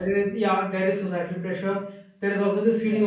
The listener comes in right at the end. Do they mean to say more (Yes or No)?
No